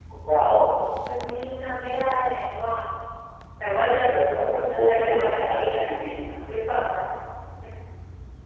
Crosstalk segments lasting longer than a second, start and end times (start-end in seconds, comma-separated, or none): 4.4-5.8